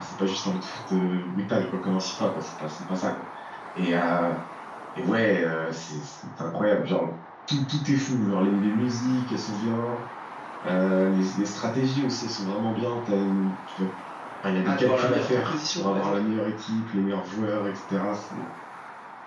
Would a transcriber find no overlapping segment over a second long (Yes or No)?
No